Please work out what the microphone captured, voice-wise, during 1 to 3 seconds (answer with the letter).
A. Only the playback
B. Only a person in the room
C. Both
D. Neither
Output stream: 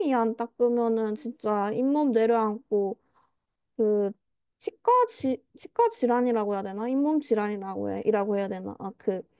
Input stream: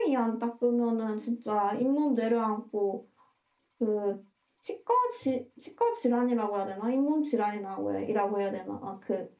A